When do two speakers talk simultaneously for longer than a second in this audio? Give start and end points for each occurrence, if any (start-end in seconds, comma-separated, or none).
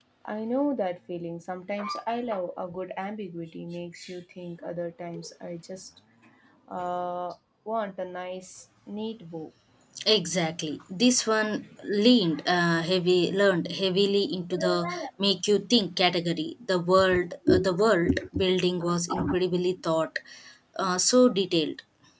none